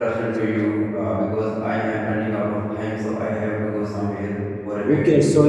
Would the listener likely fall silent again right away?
No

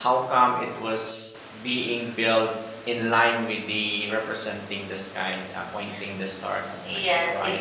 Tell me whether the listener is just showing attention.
No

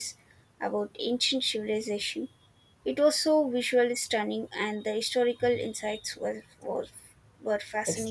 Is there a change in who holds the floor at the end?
Yes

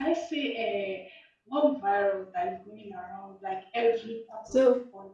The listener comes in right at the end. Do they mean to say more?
No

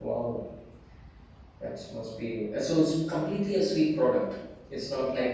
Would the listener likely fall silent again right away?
No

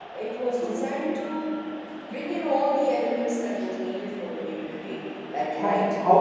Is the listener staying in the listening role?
No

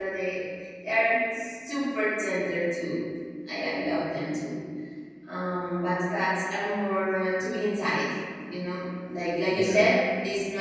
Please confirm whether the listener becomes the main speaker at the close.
No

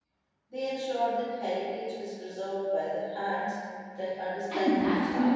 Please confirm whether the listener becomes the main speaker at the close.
Yes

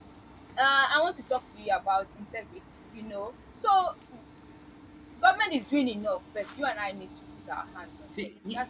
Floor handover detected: Yes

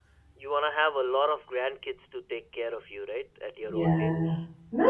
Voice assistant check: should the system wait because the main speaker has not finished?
No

